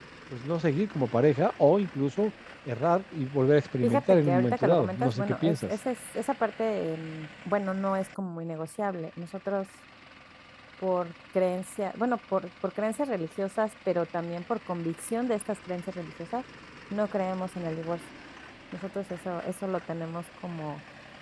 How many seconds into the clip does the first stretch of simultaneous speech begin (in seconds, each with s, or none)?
3.8 s